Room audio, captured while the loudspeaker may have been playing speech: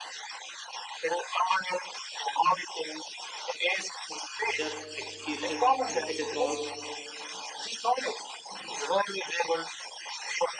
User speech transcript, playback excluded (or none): just execution you know it involves